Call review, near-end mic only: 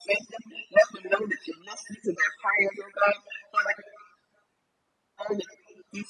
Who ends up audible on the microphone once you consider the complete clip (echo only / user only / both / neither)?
echo only